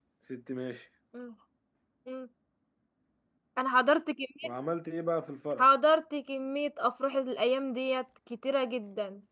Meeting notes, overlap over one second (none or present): none